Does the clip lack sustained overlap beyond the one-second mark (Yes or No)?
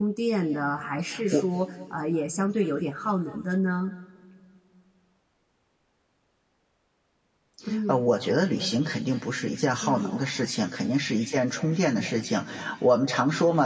Yes